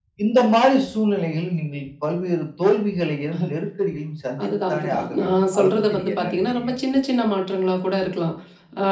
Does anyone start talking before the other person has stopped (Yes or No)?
Yes